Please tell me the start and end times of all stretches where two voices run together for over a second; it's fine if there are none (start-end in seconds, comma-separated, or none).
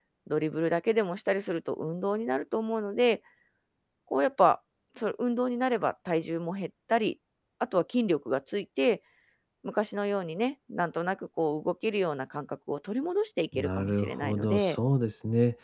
13.6-14.8